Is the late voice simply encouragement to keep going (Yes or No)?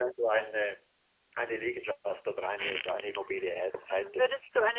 No